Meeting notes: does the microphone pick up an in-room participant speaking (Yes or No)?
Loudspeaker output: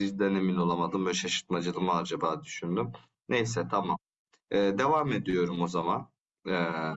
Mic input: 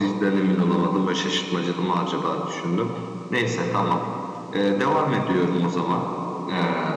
No